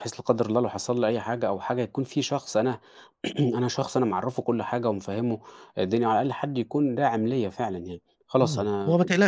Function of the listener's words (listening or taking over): taking over